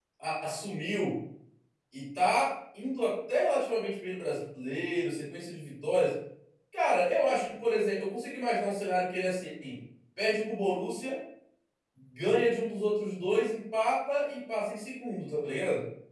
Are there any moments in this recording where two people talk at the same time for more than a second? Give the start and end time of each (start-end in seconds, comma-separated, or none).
none